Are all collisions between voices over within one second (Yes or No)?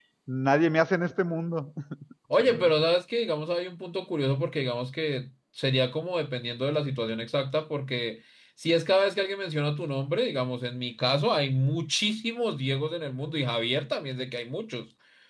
Yes